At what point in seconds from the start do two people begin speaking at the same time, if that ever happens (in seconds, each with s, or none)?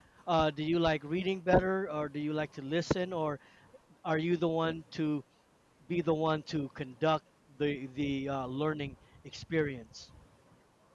none